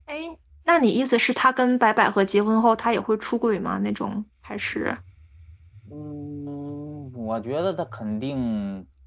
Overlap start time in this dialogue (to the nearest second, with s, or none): none